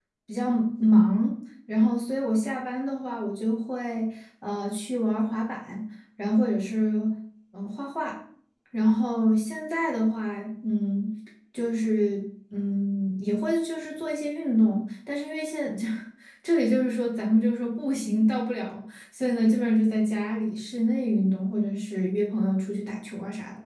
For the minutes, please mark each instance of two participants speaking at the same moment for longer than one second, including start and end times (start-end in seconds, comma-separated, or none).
none